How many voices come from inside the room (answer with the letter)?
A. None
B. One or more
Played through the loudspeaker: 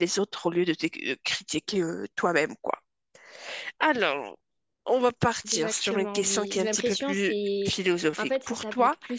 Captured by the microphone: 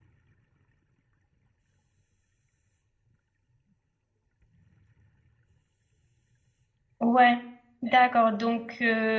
B